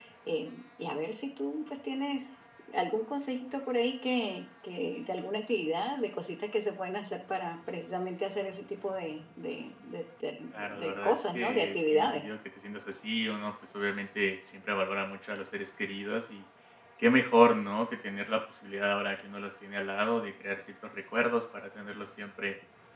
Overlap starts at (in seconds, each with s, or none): 10.5 s